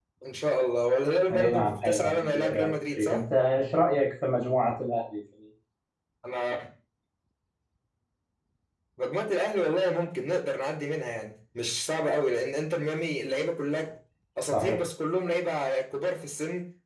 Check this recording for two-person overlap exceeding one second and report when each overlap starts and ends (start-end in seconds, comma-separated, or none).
1.3-3.2